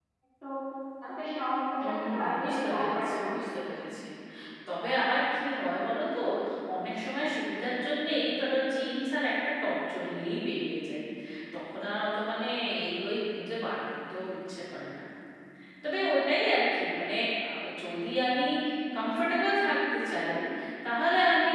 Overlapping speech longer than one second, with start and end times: 1.8-3.5

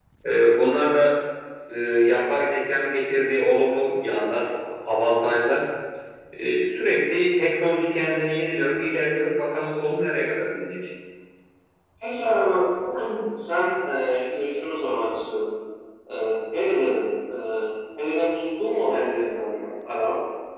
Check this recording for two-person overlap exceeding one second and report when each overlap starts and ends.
none

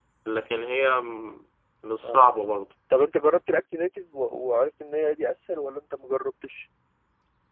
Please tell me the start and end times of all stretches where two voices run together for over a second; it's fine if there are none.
none

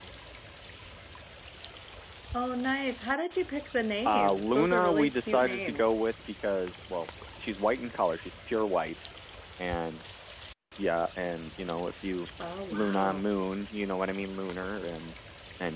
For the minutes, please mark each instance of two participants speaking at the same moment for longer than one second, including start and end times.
4.0-5.9

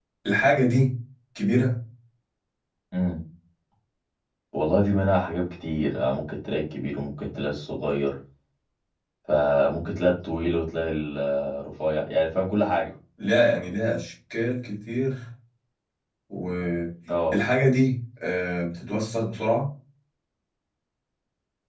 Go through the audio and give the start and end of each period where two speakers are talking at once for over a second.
none

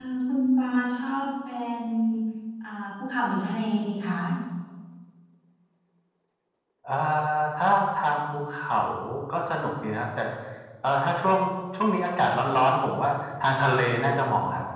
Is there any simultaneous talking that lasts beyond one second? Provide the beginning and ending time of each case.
none

